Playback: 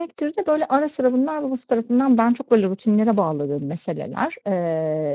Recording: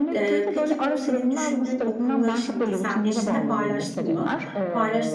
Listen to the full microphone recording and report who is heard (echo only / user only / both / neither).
both